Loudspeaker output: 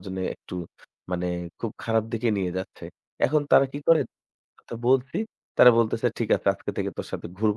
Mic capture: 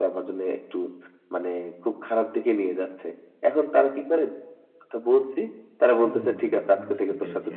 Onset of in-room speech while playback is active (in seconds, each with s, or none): 6.0 s